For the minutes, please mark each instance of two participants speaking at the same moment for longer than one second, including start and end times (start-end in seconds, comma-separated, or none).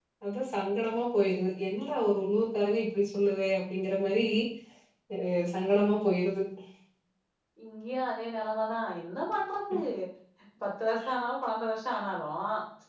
none